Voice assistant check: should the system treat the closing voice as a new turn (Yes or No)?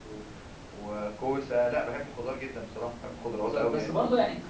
Yes